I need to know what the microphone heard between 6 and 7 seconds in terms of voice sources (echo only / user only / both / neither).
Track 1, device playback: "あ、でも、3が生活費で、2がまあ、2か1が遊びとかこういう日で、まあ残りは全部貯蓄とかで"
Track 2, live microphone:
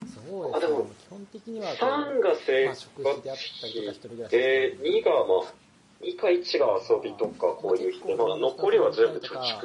both